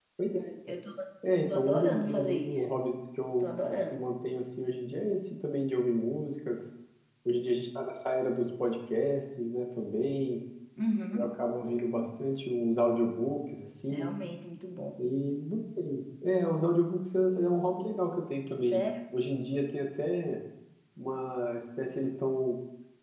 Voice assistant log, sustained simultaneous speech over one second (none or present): present